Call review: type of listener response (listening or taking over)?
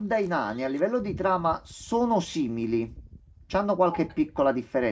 listening